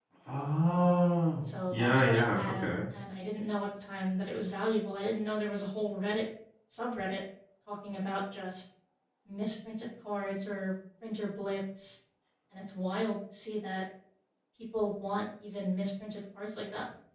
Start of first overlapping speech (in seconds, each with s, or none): 1.4 s